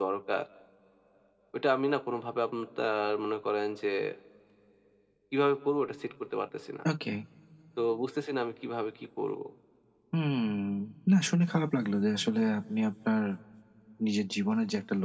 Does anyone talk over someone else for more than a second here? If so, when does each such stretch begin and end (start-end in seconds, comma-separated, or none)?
none